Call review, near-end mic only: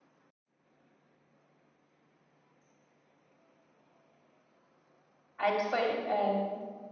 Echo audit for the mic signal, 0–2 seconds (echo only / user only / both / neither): neither